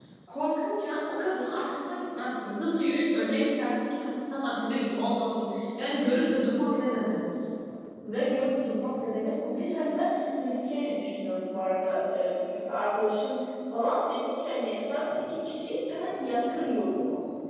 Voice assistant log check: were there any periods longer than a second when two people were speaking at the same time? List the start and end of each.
none

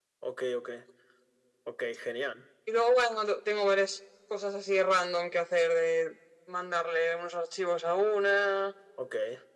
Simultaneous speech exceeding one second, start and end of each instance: none

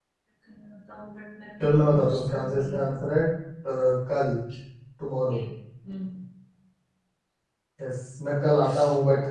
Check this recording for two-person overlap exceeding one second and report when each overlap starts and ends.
1.6-3.2

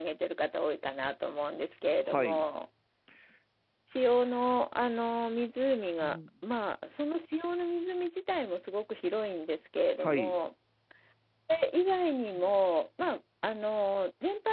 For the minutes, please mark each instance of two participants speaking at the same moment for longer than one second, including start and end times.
none

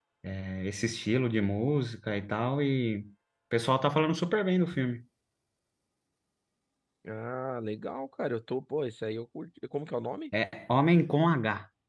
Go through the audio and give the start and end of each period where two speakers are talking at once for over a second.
none

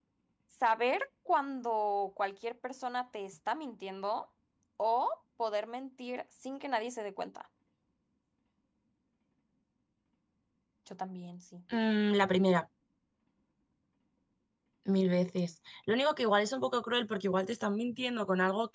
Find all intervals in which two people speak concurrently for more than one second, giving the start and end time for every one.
none

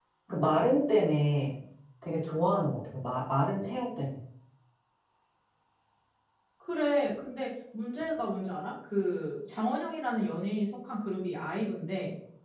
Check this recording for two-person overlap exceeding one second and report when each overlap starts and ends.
none

